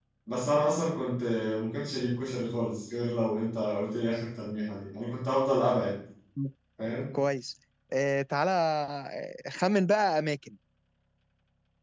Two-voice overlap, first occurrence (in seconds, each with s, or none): none